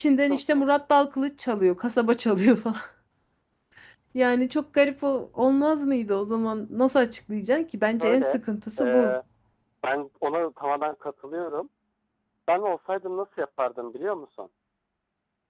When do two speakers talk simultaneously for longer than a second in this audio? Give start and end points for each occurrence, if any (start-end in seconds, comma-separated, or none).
none